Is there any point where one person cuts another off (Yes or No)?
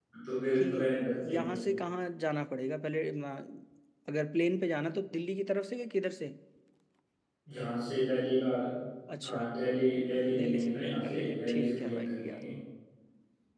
Yes